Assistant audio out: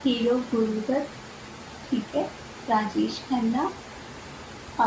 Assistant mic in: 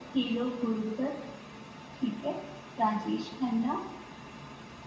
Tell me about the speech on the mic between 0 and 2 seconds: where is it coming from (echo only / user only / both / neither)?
echo only